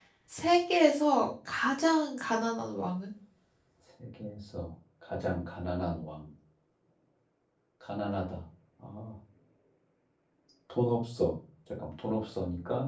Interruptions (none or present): none